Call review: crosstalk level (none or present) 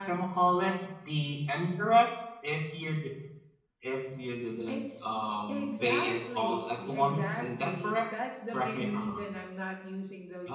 present